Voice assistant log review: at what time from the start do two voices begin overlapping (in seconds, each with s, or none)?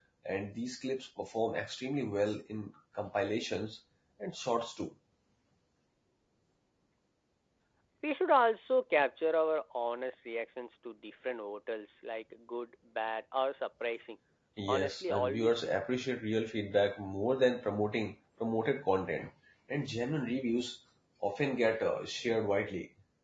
14.7 s